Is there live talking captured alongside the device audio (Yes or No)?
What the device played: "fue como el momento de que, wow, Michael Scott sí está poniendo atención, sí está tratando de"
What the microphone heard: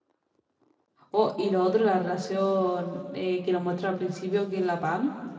Yes